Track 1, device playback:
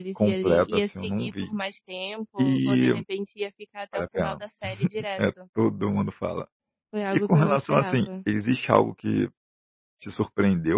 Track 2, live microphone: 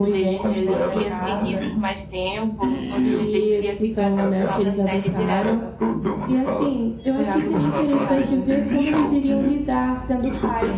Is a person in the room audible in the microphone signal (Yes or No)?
Yes